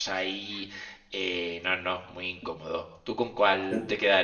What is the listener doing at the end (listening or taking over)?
taking over